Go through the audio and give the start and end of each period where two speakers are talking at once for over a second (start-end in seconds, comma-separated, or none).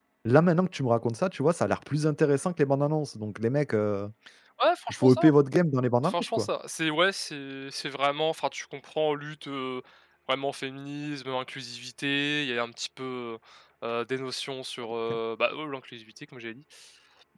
none